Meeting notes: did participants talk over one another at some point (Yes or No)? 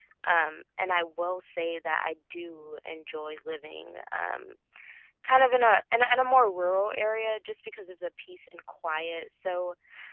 No